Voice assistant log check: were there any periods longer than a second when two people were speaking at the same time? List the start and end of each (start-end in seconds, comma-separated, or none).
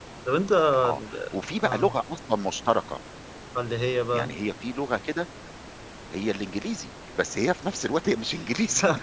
none